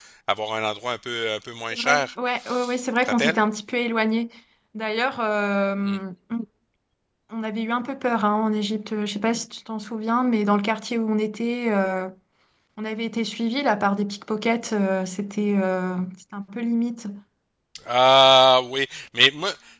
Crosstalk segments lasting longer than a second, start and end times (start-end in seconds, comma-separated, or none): none